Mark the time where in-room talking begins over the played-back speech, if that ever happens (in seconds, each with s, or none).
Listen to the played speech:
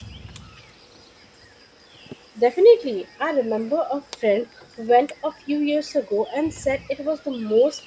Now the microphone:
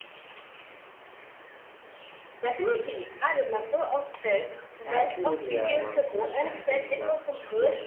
4.8 s